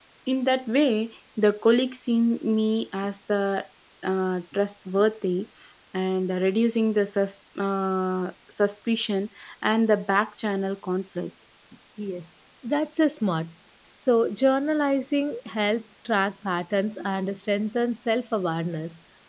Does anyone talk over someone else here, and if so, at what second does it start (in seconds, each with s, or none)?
none